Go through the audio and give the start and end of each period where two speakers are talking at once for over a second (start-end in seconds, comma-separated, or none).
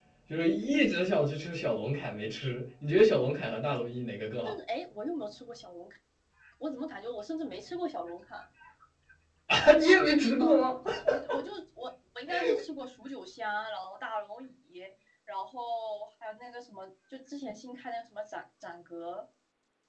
none